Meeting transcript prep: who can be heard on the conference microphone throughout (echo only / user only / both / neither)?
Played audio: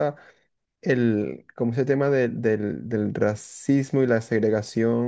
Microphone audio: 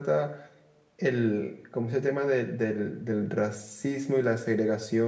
echo only